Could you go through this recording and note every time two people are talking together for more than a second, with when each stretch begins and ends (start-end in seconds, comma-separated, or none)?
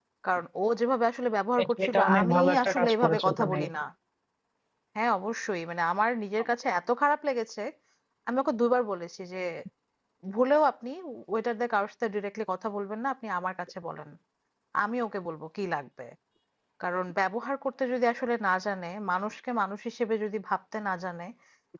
1.6-3.6